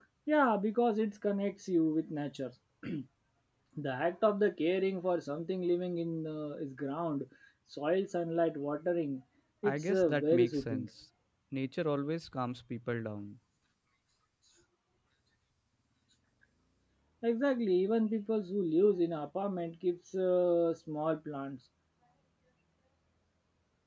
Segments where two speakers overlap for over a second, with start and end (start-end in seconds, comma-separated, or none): 9.6-10.9